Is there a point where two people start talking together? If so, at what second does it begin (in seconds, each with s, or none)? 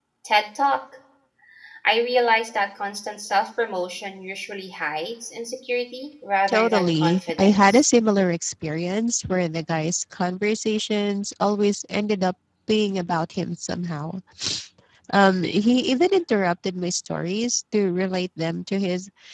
6.5 s